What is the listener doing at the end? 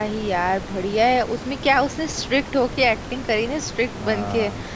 listening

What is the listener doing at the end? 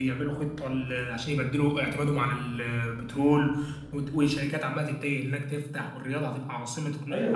taking over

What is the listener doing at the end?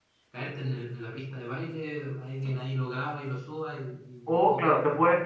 taking over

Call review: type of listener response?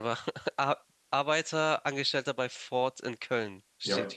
taking over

